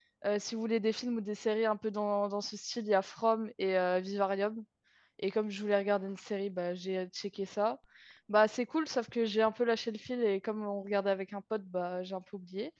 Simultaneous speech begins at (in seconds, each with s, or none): none